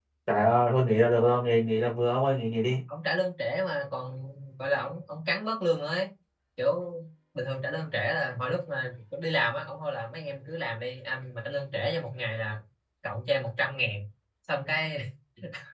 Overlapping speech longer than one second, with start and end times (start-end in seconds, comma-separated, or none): none